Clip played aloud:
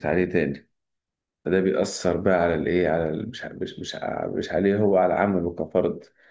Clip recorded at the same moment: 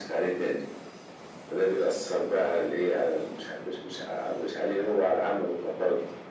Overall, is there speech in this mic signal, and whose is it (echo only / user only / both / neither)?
echo only